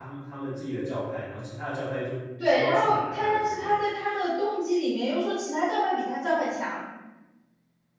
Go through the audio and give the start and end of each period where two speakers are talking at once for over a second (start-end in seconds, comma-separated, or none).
2.5-3.8